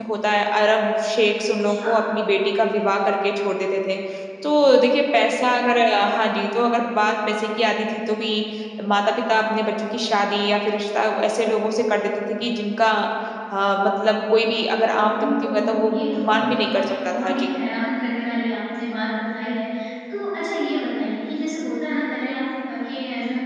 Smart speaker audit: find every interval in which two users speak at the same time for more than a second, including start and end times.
14.9-17.3

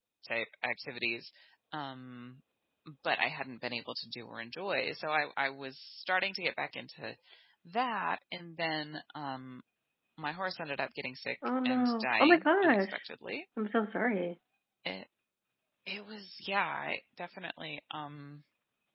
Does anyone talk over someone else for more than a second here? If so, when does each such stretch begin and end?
11.7-13.0

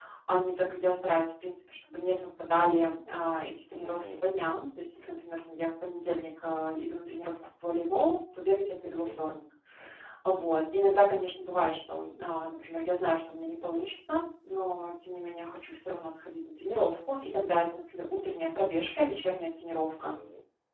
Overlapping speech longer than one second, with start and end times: none

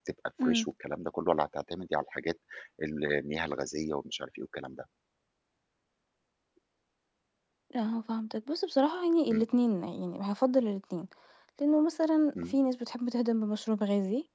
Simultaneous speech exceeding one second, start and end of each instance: none

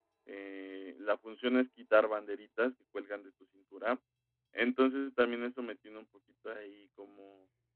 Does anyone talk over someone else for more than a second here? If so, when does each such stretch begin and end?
none

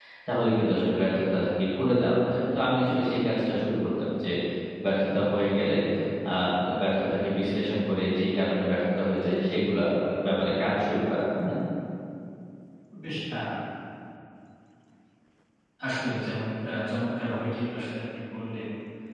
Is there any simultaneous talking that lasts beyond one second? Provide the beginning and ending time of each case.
none

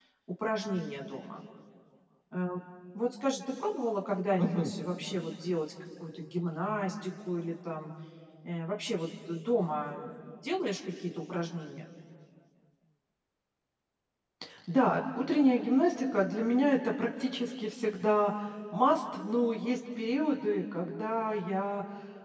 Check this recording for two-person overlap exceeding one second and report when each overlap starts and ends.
none

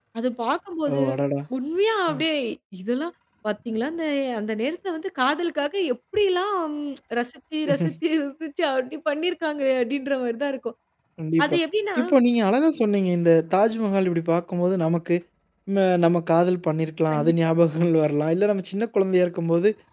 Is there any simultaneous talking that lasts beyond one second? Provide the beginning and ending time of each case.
none

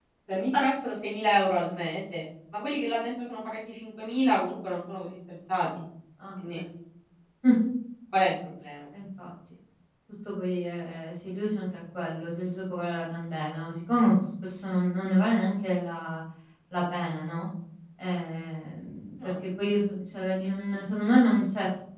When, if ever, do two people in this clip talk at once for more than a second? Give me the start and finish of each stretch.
none

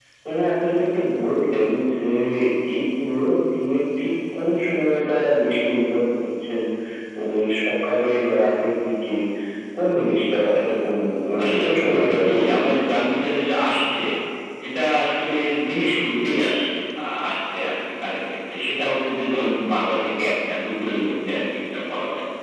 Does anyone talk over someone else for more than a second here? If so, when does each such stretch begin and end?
11.4-12.8

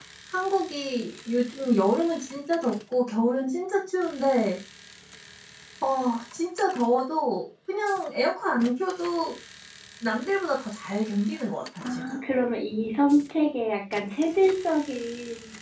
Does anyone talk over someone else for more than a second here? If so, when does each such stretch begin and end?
none

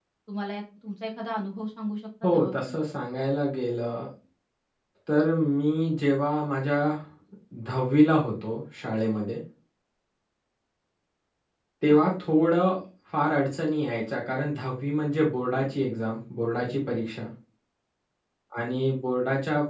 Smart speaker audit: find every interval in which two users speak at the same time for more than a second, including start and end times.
none

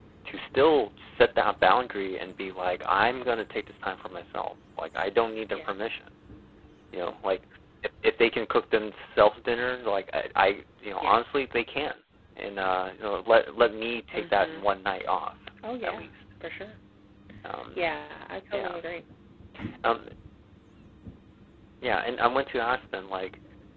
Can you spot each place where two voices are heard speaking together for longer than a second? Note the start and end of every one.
none

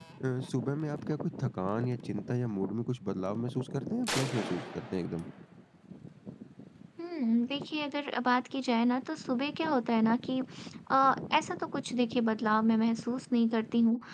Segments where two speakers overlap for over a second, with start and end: none

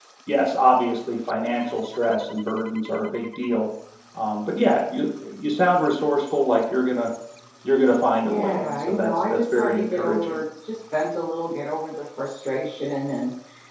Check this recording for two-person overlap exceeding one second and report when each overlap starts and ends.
8.2-10.4

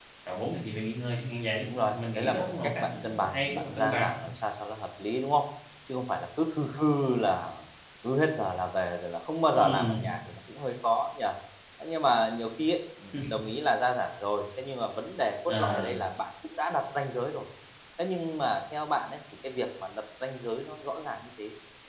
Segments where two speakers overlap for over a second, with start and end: 1.6-4.1

